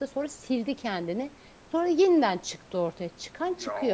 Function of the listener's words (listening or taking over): taking over